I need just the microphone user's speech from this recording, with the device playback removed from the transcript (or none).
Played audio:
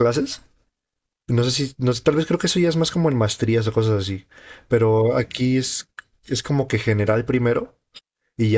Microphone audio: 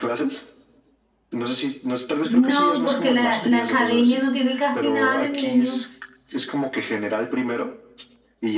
No, porque la, la academia no tiene casi nada de niños,